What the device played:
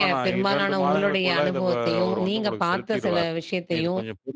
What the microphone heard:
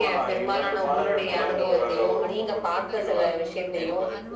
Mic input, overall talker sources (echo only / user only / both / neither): both